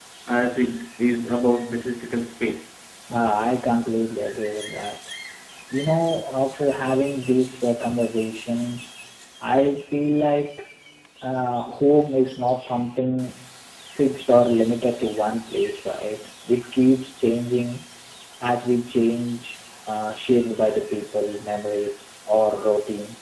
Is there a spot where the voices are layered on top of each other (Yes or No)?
No